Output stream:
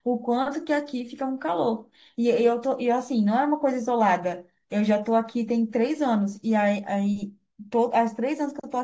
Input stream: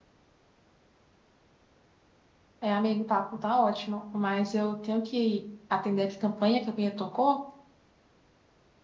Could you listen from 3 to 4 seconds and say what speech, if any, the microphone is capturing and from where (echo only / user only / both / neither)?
user only